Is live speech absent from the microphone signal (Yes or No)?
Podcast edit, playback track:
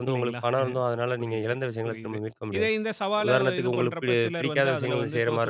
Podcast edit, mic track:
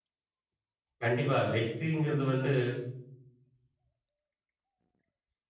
No